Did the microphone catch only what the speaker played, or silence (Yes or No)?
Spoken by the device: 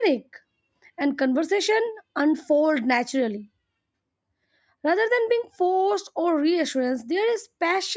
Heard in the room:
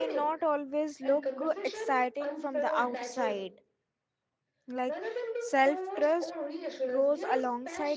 No